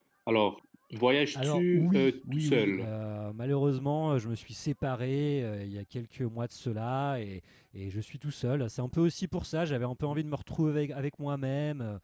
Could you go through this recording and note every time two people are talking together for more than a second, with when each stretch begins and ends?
1.3-2.9

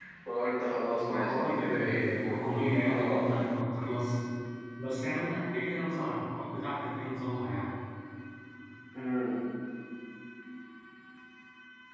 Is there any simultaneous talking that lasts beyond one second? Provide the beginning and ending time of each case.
1.0-2.3

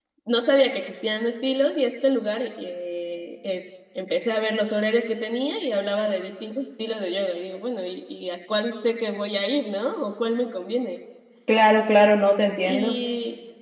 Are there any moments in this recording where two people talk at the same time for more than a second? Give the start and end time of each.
none

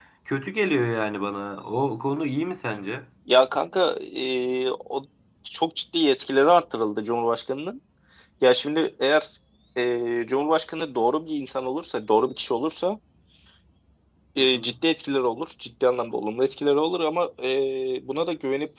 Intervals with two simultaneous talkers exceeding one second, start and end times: none

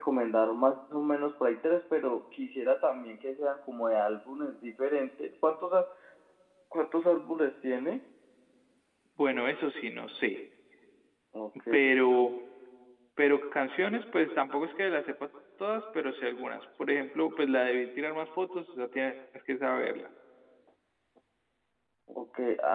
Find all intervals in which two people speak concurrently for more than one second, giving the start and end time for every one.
none

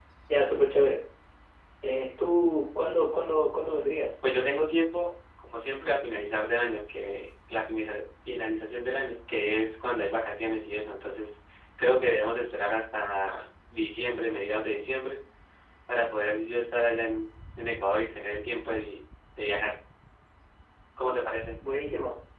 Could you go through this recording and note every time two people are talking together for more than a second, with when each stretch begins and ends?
none

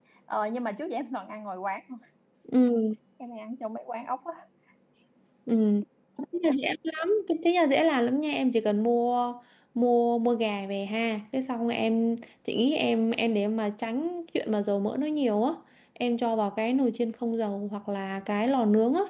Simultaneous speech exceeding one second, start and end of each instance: none

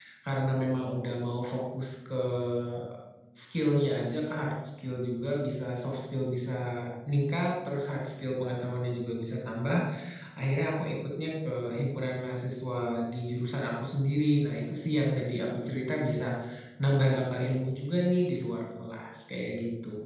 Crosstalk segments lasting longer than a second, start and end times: none

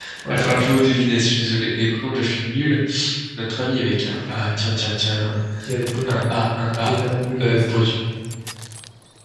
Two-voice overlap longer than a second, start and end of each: none

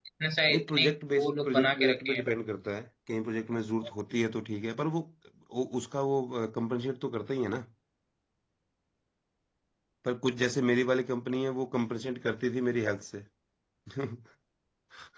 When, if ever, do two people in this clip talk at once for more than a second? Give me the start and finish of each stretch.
0.5-2.2

